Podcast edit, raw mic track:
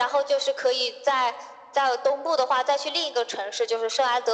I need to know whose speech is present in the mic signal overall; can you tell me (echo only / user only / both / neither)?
echo only